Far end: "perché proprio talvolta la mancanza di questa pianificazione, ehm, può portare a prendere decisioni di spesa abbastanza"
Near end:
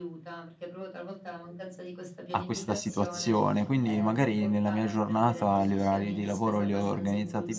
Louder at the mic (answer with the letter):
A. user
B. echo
A